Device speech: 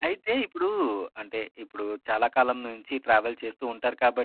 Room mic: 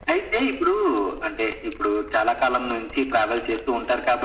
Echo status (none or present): present